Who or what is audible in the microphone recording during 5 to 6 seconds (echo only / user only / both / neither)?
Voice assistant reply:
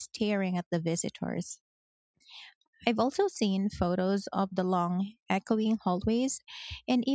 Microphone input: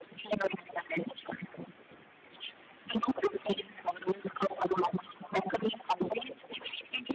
echo only